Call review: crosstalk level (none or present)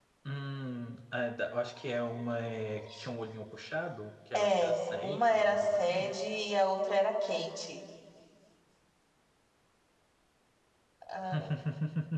present